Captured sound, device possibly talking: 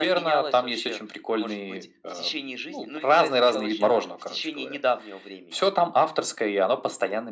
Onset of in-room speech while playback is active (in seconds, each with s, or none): none